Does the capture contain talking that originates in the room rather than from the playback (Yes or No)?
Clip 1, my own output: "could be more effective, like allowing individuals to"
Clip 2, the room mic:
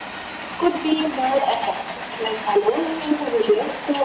No